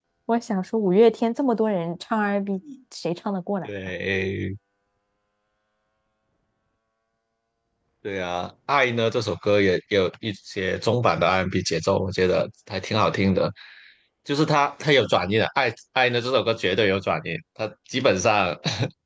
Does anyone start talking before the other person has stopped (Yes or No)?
No